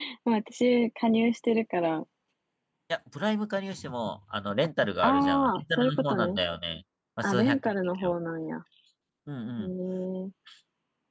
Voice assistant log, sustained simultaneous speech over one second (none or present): present